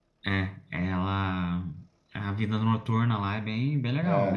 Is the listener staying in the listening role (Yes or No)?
No